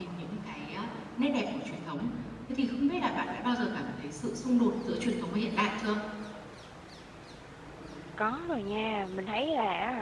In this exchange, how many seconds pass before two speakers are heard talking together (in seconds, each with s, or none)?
none